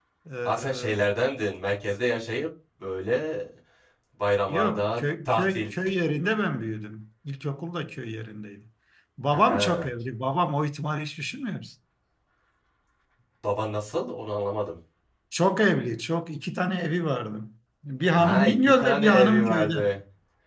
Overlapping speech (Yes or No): Yes